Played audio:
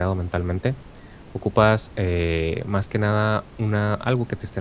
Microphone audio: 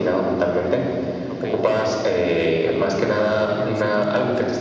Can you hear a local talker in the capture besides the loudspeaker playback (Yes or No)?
Yes